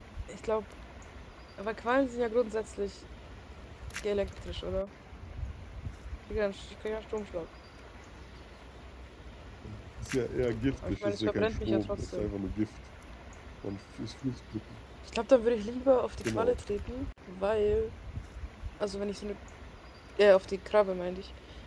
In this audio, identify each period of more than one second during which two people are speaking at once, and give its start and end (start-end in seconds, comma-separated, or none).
10.9-12.3